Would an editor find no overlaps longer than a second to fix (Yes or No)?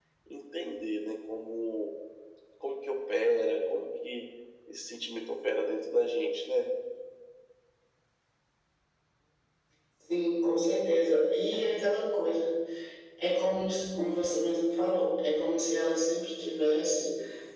Yes